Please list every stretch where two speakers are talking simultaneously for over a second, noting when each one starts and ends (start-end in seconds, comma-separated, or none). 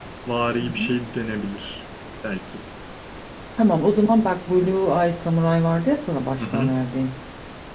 none